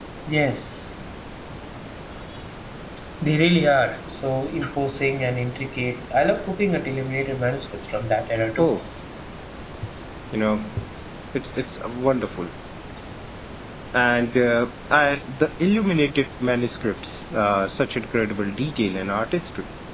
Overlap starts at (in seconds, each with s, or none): none